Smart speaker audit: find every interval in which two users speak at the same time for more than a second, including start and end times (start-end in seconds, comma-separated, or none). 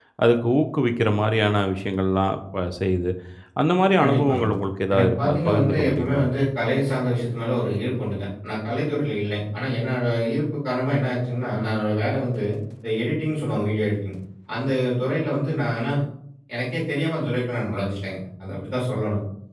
4.9-6.2